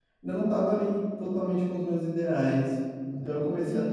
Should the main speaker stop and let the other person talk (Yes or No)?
Yes